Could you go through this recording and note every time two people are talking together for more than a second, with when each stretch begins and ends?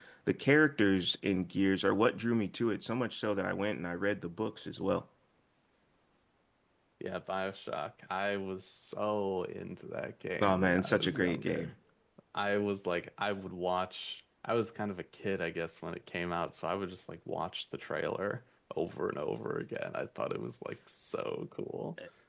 10.4-11.7

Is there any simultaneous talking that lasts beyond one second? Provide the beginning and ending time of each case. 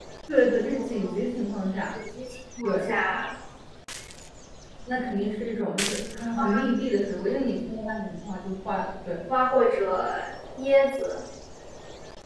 none

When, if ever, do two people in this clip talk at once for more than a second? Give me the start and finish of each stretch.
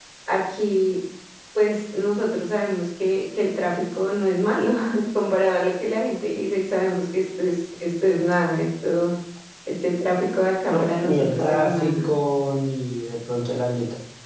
10.7-12.1

